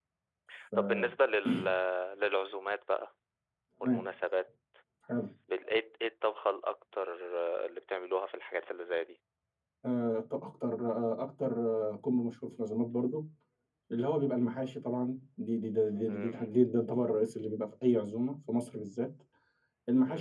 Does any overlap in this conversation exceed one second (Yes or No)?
No